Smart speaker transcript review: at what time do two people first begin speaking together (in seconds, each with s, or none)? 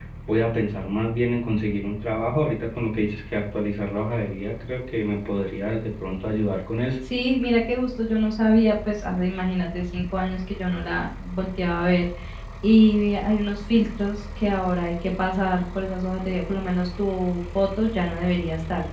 none